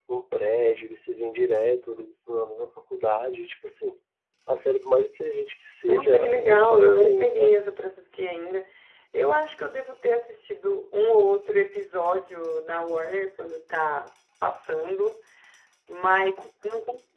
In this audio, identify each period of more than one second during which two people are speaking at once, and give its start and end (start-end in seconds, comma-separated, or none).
5.9-7.5